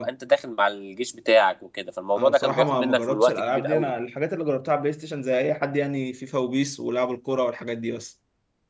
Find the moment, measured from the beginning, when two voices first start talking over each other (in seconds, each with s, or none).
2.2 s